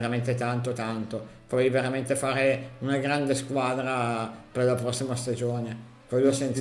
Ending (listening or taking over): taking over